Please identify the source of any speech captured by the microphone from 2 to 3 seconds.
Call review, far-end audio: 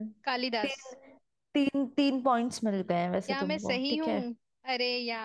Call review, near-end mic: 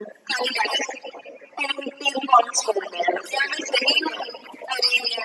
echo only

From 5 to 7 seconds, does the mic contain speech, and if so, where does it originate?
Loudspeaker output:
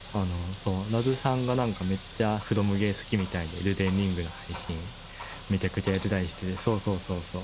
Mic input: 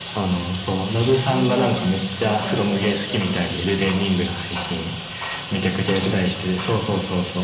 echo only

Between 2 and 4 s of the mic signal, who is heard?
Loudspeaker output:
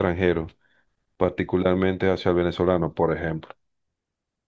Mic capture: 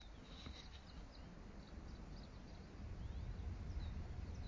neither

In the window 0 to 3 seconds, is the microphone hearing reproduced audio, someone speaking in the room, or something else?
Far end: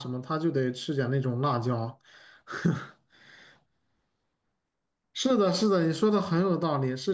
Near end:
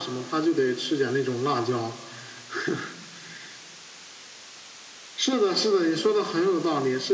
echo only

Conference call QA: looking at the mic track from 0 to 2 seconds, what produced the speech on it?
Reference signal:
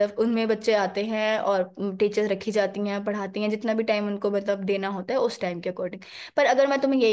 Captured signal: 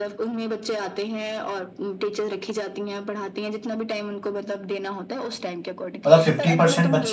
echo only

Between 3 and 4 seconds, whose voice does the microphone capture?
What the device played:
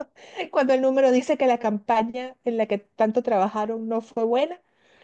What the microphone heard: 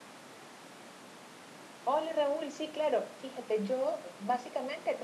user only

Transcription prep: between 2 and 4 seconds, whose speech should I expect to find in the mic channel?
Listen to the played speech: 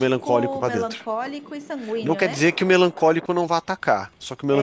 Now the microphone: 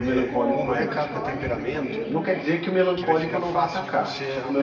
both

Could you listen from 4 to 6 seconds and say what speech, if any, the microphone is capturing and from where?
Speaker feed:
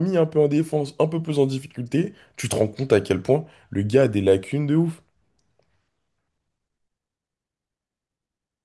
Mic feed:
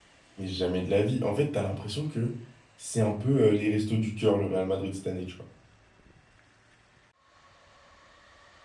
user only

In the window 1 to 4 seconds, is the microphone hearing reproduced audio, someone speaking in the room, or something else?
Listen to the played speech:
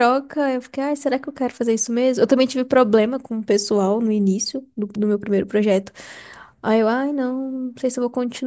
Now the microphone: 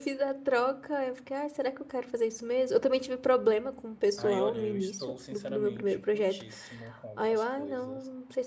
echo only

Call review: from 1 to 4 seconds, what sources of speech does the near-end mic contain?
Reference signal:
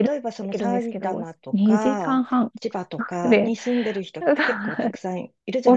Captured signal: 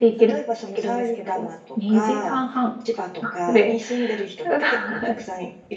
echo only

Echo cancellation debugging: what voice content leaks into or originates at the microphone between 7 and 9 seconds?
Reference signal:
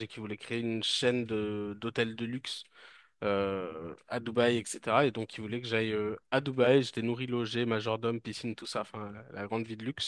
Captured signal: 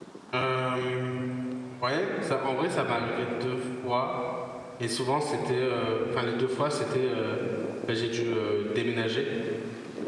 user only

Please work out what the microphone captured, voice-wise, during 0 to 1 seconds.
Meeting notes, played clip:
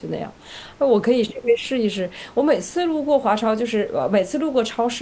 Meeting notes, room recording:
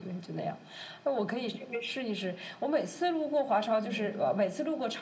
echo only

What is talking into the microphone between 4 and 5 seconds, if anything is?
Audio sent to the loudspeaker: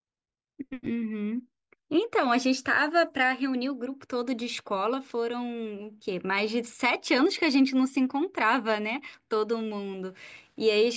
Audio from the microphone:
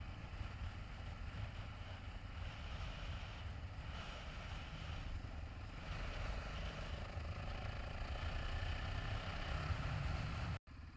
neither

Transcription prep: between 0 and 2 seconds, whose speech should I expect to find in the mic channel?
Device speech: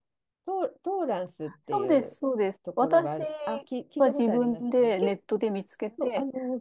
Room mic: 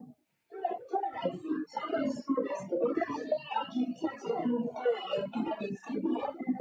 echo only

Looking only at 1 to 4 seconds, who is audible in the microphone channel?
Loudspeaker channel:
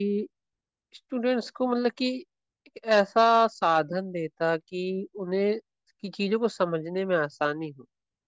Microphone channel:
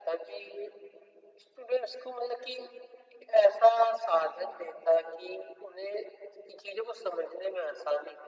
echo only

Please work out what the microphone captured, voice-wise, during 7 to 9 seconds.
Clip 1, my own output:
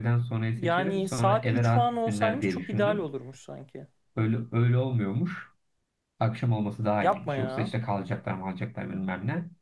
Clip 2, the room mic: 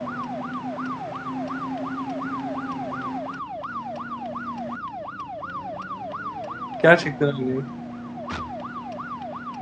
user only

